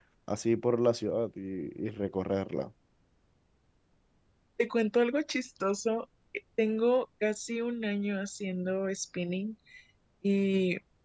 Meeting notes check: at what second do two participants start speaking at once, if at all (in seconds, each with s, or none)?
none